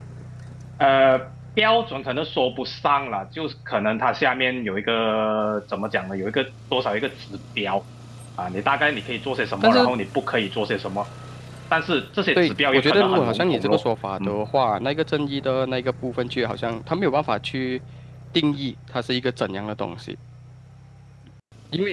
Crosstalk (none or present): present